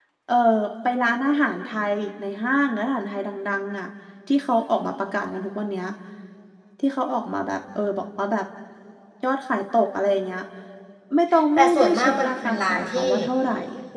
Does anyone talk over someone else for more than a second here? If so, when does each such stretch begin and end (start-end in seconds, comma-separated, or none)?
11.6-13.0